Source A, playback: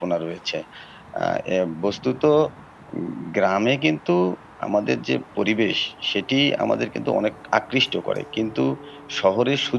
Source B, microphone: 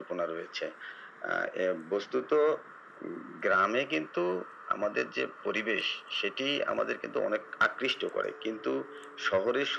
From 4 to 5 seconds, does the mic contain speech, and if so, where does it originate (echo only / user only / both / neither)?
echo only